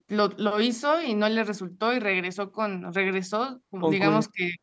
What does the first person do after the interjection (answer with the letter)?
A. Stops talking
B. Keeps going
B